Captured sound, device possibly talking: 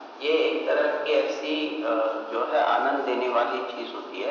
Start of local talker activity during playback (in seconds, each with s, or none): none